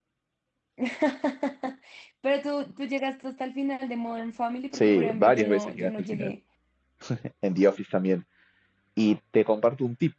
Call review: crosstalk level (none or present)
present